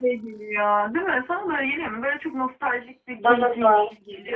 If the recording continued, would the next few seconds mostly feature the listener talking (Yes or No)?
Yes